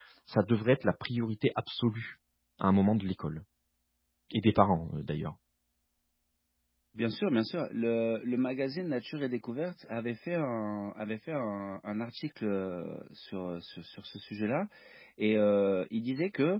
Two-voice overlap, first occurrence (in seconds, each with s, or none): none